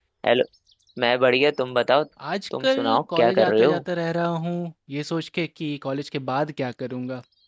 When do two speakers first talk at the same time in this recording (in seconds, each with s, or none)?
2.6 s